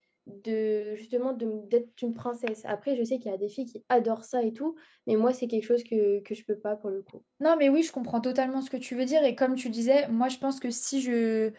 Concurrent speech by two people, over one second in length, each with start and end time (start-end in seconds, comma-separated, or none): none